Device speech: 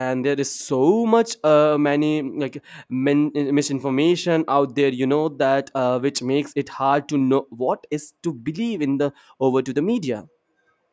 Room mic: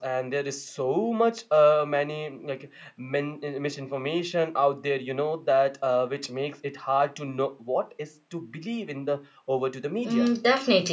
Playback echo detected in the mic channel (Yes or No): Yes